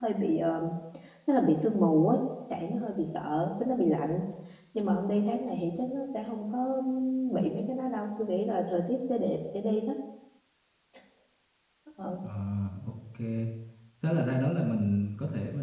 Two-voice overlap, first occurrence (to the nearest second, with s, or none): none